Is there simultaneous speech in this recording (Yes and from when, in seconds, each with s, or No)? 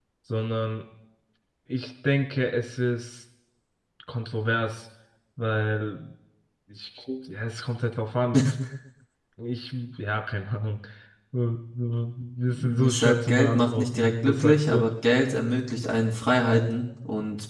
Yes, from 12.5 s